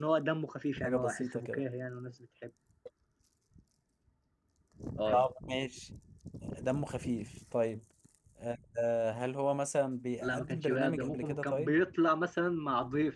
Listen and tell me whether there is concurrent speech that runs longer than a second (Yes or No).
Yes